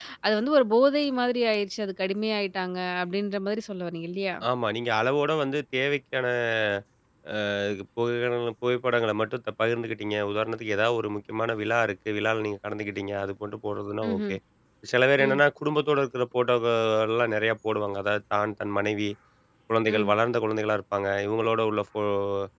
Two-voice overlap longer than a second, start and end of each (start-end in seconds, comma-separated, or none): none